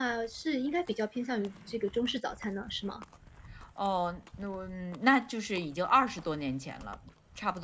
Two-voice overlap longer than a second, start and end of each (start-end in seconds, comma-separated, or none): none